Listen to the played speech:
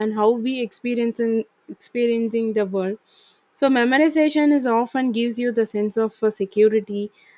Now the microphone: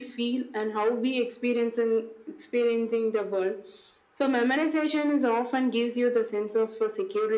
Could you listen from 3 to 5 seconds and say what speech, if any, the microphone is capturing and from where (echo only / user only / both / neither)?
echo only